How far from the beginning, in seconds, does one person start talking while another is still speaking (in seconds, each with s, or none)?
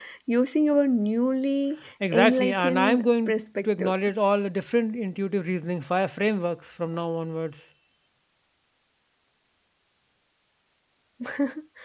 2.0 s